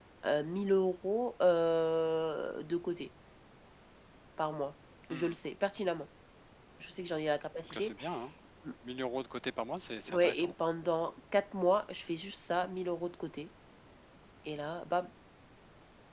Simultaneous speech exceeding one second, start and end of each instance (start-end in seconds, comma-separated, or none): none